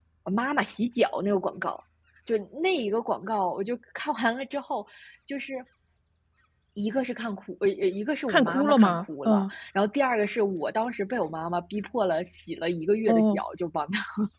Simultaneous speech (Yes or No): Yes